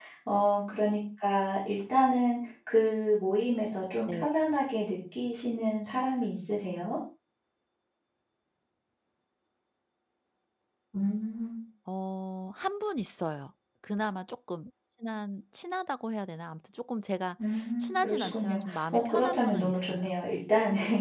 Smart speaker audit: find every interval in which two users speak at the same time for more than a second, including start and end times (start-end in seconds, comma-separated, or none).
17.8-20.0